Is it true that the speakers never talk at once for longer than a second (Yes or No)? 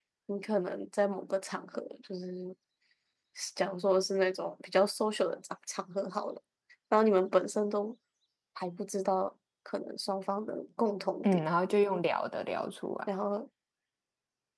Yes